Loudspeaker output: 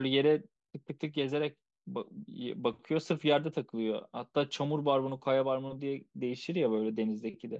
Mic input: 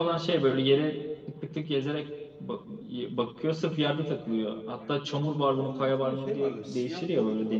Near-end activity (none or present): present